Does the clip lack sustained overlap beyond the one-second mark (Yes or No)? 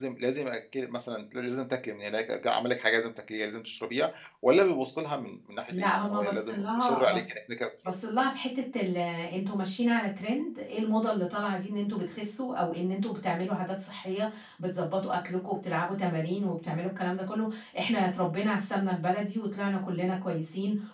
No